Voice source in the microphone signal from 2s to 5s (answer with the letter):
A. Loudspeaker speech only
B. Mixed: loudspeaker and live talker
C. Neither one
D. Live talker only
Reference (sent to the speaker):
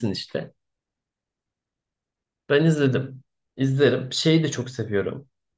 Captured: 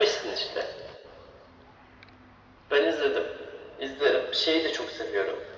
A